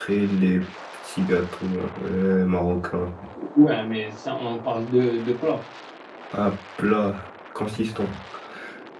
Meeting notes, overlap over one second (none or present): none